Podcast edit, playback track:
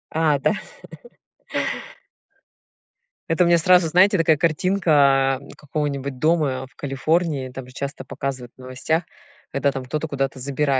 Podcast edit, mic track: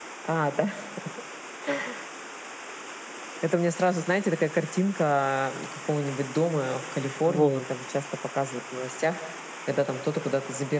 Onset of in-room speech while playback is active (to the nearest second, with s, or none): 7 s